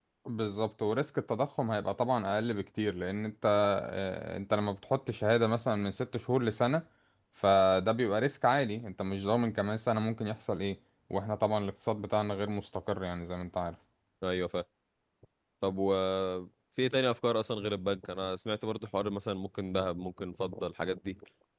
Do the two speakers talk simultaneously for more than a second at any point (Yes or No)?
No